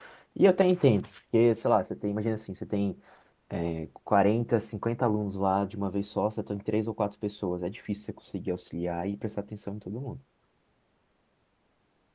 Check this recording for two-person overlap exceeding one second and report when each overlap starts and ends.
none

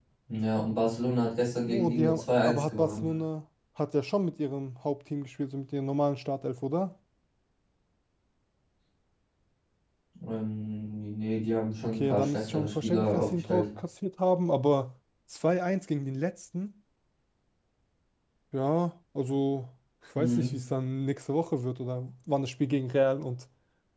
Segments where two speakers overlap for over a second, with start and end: 1.7-3.1, 11.8-13.7

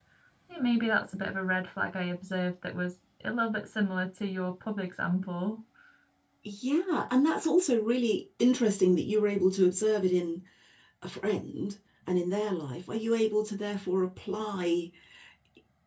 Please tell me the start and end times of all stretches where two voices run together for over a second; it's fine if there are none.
none

